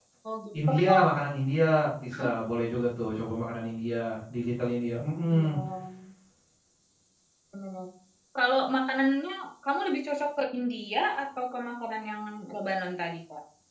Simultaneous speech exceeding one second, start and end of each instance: none

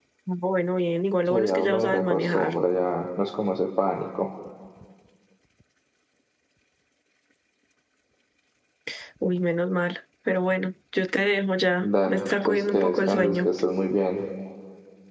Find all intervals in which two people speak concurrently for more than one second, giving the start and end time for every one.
1.3-2.5, 11.8-13.5

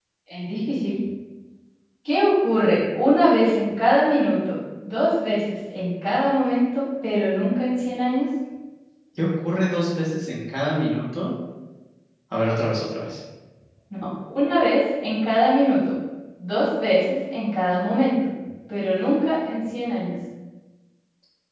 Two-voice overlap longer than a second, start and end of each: none

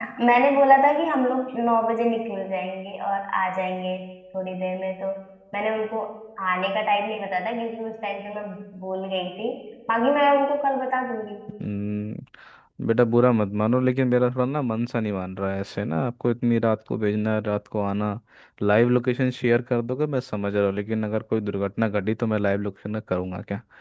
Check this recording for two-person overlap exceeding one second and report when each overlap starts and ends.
none

